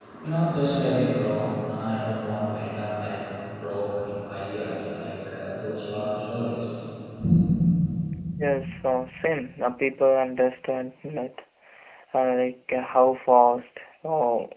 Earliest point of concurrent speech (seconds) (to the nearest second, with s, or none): none